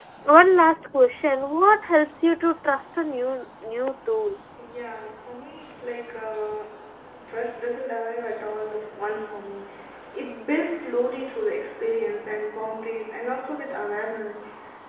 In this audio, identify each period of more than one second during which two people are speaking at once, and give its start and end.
none

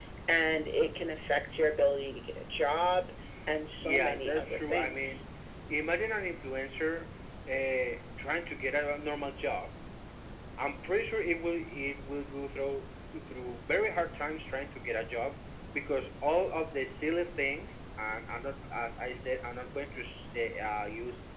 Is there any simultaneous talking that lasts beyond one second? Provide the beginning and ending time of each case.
3.8-5.2

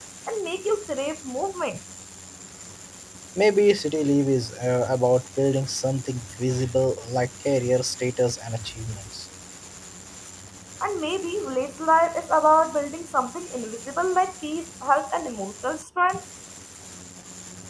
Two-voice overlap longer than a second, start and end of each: none

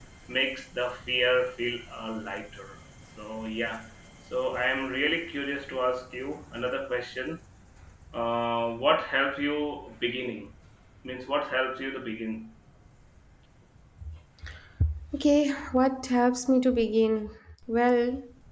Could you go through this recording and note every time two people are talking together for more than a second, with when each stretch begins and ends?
none

